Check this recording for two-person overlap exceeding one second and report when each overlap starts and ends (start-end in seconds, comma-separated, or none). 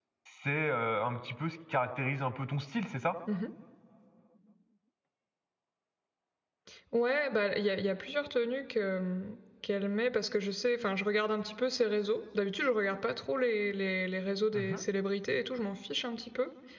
none